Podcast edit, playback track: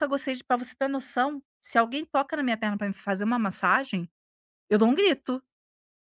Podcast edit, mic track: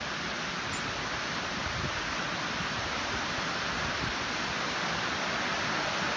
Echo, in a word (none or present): none